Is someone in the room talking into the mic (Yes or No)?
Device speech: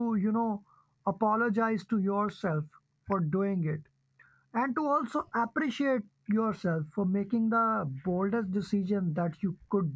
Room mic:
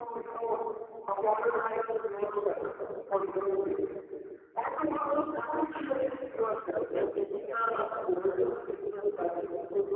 Yes